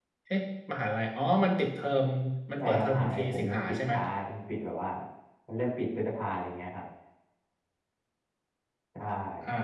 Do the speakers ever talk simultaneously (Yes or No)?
Yes